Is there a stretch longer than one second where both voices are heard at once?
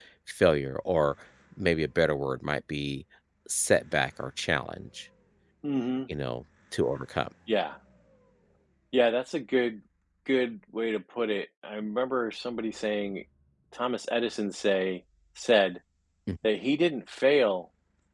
No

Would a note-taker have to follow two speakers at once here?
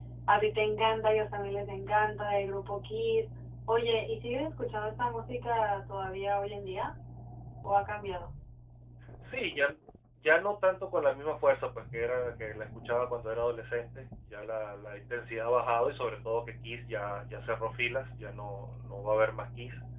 No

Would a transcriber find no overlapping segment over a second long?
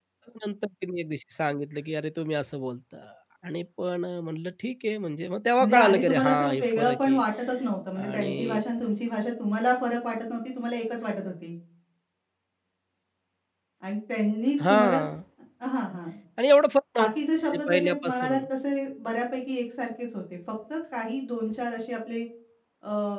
No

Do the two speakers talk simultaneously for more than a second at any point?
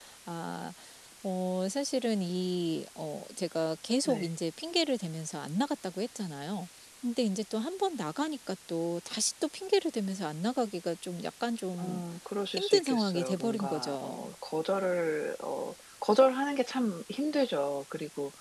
Yes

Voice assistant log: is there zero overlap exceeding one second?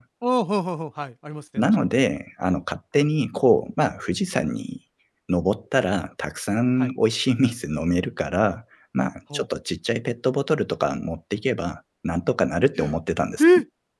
Yes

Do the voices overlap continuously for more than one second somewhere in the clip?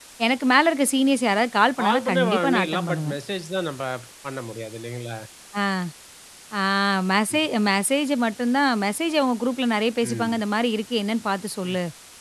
Yes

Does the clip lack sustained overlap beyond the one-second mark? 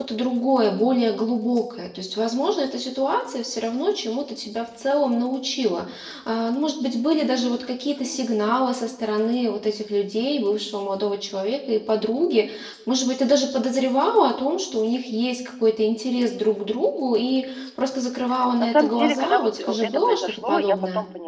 No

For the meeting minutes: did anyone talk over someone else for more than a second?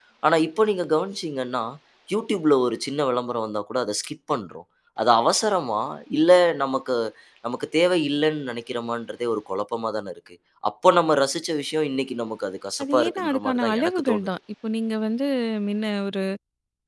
Yes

